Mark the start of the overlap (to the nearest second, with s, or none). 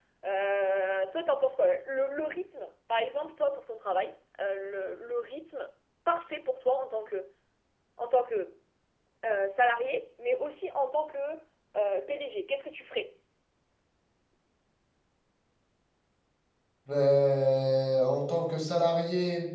none